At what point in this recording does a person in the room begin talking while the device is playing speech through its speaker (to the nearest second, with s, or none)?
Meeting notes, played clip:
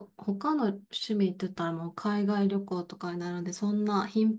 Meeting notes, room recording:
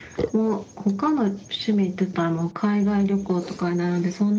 none